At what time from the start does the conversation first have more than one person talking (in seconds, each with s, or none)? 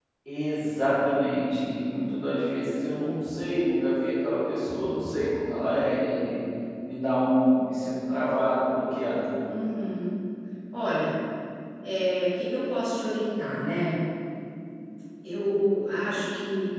none